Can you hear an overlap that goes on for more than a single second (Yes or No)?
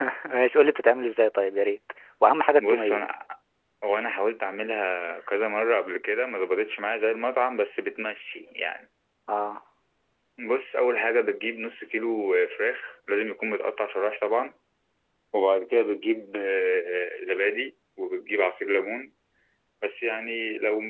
No